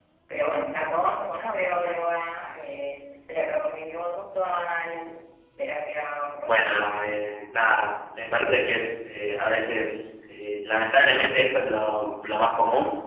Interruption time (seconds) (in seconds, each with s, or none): 6.5 s